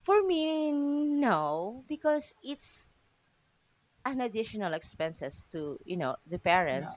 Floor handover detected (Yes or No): No